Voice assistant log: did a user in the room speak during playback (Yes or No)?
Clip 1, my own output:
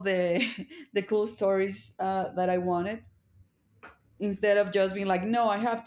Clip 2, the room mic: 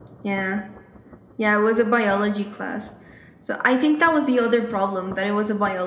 Yes